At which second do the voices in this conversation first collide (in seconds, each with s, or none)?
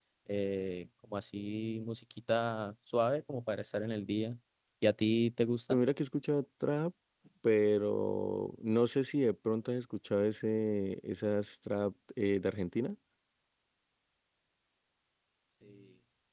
none